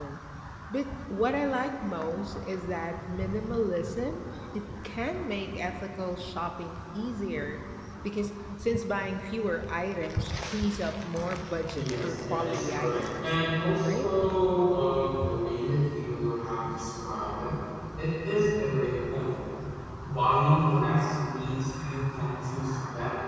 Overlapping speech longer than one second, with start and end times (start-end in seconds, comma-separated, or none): 11.7-13.3